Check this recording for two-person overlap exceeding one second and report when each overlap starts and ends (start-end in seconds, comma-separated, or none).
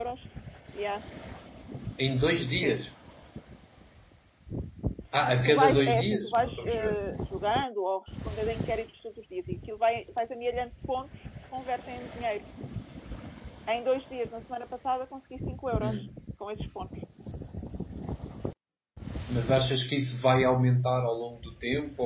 5.4-6.9